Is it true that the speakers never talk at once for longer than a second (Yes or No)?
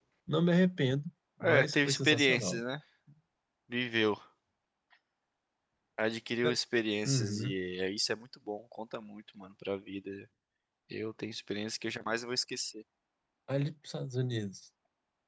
No